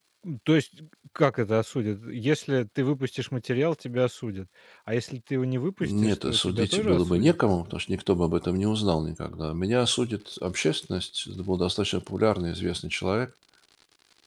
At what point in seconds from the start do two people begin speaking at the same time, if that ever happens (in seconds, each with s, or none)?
5.8 s